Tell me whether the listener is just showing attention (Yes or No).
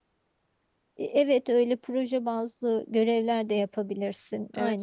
No